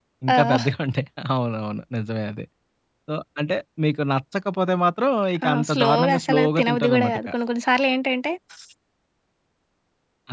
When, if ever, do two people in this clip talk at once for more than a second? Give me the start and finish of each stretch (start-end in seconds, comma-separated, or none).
5.4-7.3